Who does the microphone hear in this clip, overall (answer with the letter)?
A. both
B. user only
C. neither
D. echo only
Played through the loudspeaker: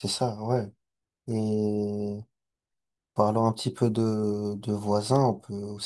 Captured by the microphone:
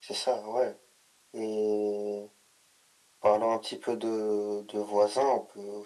D